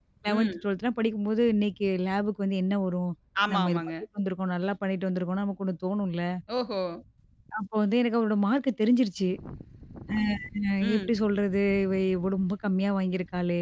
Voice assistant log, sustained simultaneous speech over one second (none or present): none